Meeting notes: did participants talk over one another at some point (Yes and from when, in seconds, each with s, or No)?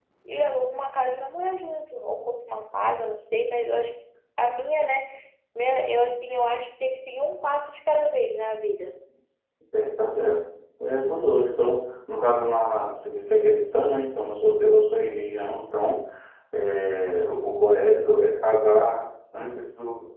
No